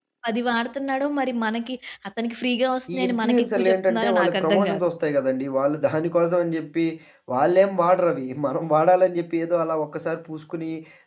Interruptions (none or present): present